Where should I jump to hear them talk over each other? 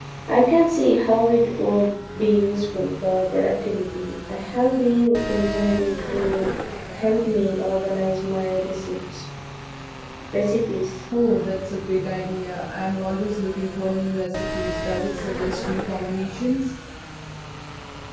none

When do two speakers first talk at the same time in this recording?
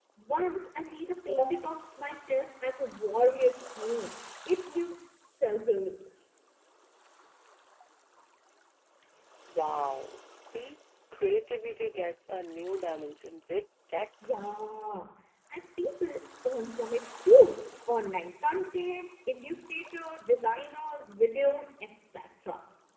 none

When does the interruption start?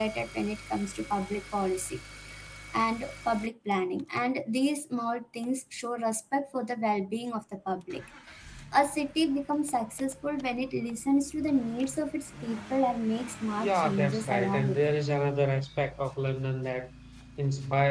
13.6 s

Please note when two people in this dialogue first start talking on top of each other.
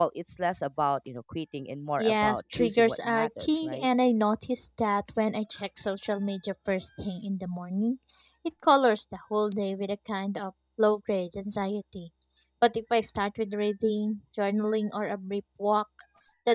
2.0 s

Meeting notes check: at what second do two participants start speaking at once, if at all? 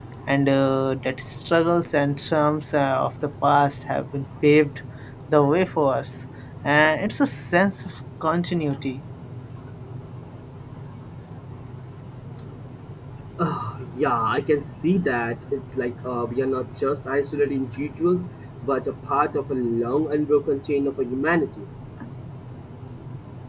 none

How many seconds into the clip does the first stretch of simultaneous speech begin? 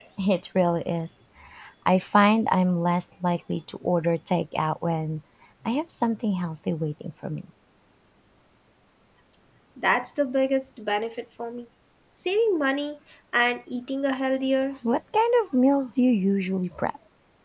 none

